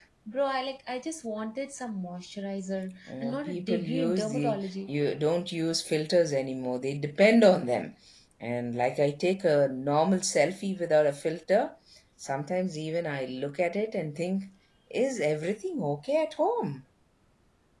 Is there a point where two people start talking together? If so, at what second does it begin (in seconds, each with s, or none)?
3.1 s